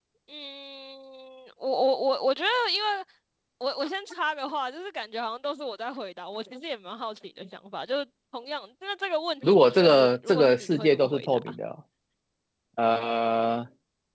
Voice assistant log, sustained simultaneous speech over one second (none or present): present